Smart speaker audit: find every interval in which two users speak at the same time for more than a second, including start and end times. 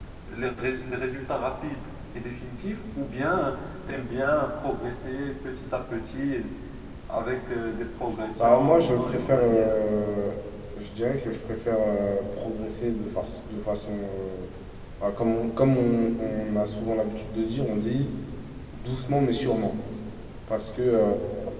8.4-9.8

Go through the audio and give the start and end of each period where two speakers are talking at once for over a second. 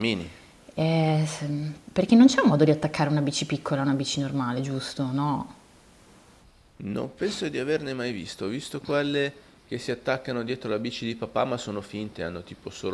none

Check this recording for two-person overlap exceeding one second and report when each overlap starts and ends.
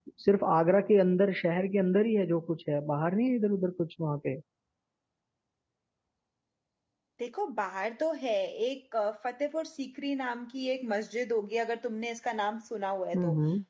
none

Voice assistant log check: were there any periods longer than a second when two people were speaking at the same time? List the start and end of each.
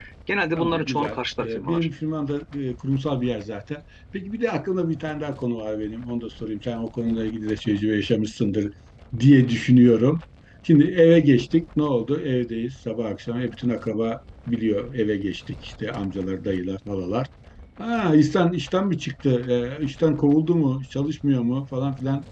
0.6-1.9

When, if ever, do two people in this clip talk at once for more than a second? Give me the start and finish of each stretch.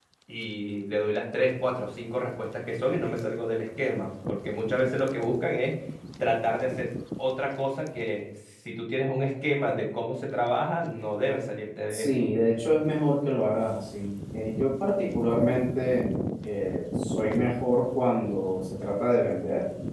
none

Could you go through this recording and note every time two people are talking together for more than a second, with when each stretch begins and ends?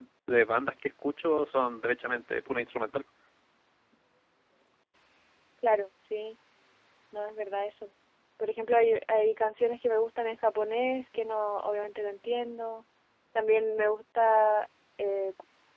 none

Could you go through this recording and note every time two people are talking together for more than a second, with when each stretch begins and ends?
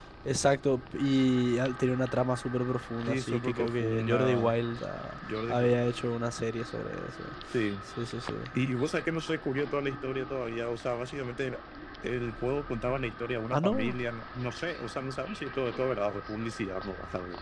3.1-4.5

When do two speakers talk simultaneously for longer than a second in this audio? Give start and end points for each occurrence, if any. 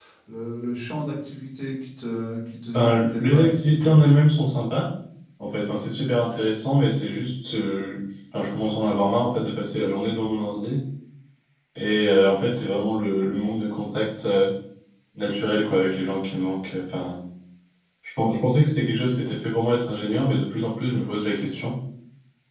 2.7-3.9

